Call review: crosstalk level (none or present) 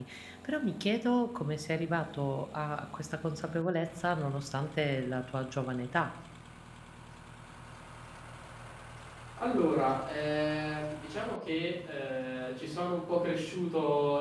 none